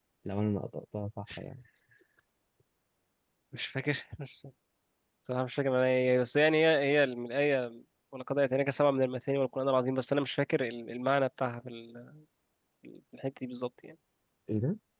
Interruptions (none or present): none